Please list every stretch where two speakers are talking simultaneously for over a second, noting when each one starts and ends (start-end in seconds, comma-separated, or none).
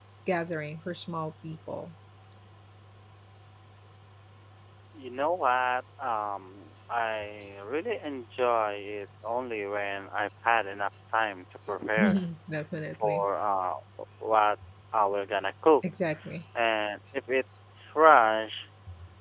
none